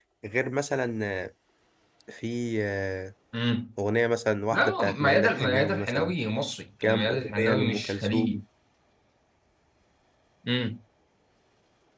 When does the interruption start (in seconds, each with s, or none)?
4.5 s